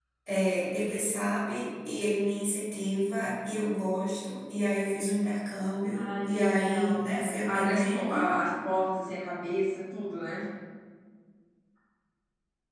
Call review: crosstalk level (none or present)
present